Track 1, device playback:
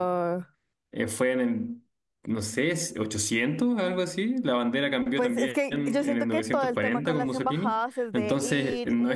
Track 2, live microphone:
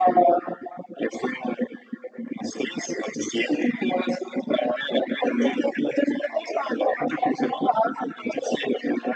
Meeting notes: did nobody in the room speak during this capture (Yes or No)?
Yes